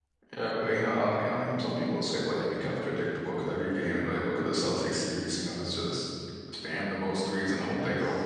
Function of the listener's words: taking over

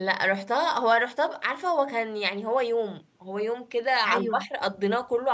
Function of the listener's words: listening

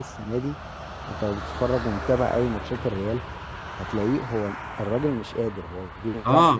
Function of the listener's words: taking over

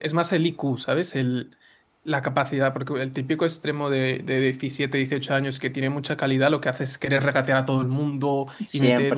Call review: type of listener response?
listening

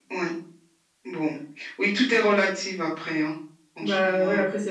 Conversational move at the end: taking over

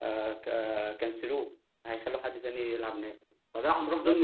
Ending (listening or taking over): listening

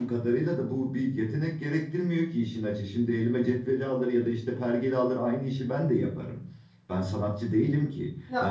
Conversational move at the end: listening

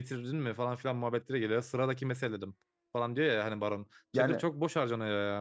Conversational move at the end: listening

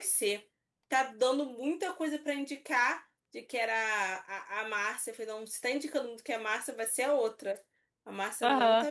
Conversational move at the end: listening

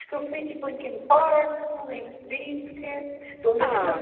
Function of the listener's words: listening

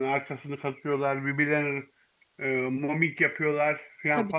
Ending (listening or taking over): listening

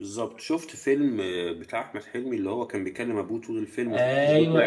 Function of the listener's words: taking over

